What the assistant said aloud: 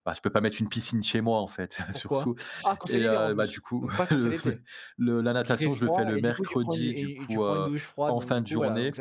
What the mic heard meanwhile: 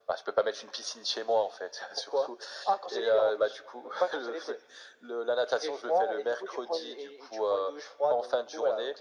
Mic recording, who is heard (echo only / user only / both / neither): echo only